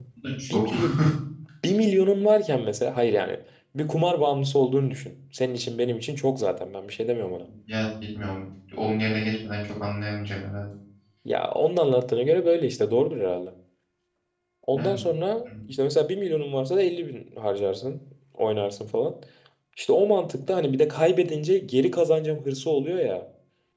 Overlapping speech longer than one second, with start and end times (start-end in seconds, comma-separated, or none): none